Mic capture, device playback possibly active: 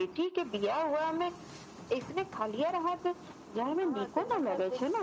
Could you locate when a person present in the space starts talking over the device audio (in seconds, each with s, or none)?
3.9 s